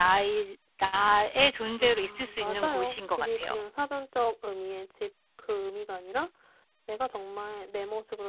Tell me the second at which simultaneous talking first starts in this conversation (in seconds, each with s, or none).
1.8 s